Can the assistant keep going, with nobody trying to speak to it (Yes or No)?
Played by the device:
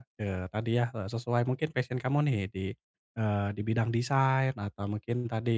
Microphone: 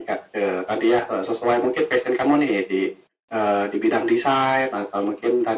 Yes